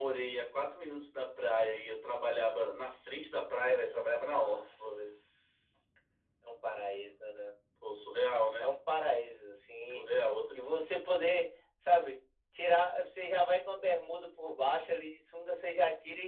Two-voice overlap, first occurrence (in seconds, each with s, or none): 3.7 s